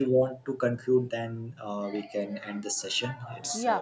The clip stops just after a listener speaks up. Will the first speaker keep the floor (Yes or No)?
No